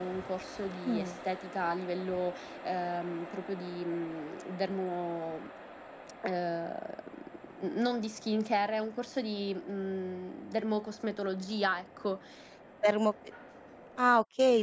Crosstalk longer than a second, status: none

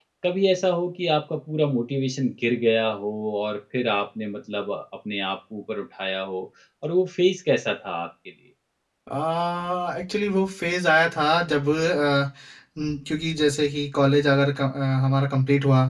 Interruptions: none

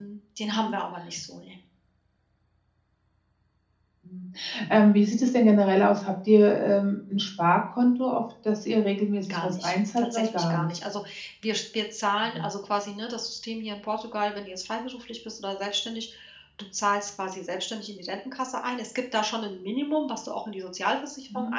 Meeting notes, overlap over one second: present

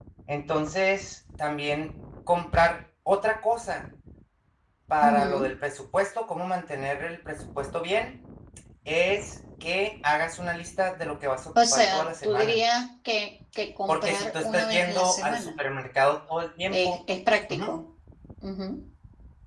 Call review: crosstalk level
present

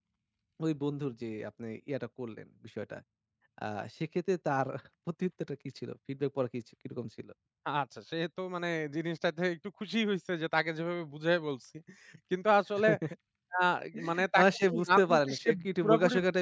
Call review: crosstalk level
present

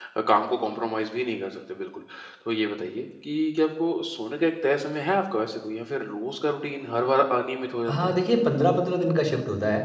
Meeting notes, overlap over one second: none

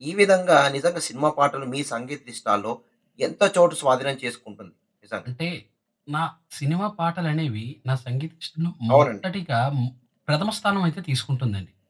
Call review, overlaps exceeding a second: none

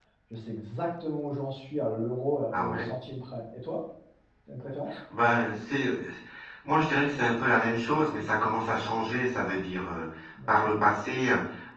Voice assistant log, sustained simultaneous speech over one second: none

